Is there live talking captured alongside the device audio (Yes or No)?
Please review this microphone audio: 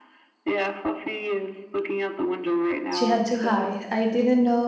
Yes